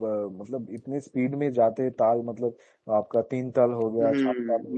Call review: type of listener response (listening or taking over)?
taking over